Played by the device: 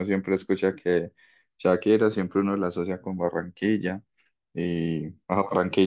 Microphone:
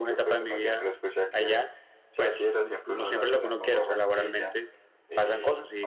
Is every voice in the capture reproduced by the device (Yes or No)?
No